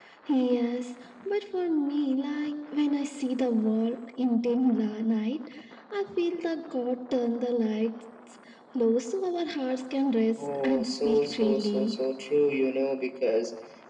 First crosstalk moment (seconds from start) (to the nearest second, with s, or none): 10 s